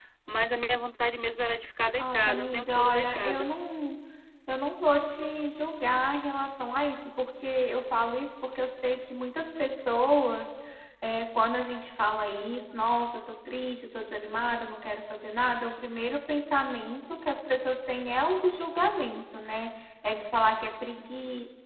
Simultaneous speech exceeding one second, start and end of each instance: 2.0-3.5

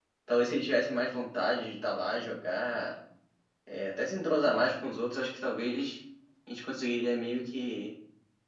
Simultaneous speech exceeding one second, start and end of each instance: none

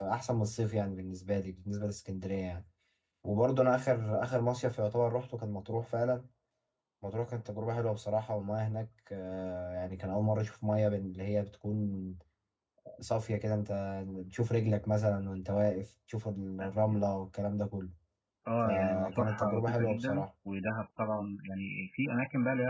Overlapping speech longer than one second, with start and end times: 18.6-20.2

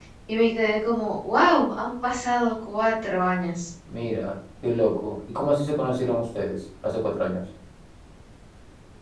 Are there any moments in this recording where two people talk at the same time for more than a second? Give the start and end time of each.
none

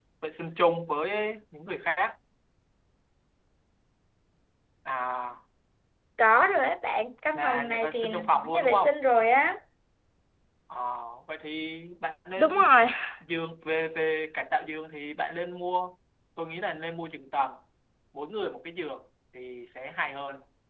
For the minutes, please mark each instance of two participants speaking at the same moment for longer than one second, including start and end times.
7.3-8.9

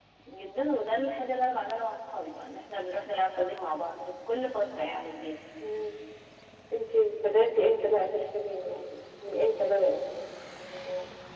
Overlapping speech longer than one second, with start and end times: none

